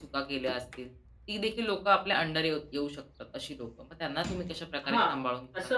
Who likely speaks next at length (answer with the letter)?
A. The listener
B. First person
A